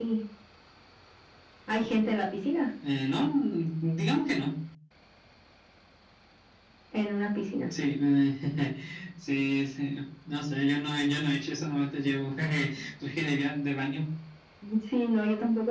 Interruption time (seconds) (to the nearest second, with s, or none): none